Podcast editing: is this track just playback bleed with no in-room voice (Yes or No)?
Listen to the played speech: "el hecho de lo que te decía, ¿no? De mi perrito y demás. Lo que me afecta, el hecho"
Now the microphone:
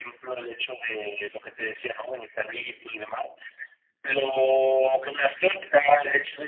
Yes